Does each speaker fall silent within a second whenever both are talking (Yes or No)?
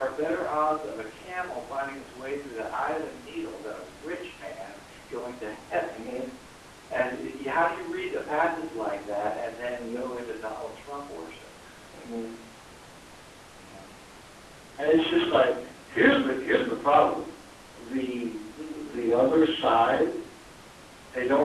Yes